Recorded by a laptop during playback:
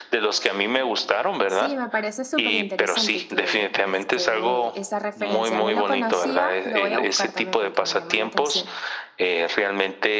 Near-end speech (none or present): present